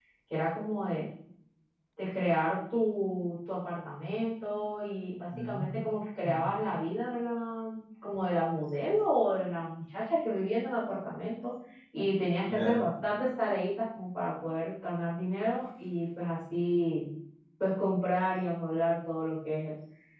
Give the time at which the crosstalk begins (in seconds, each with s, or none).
5.4 s